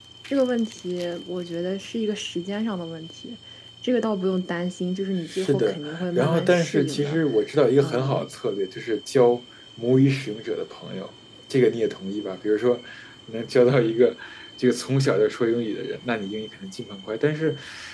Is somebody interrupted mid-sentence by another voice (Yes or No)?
Yes